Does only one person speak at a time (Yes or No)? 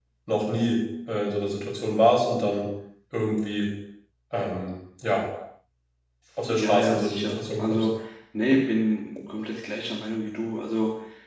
No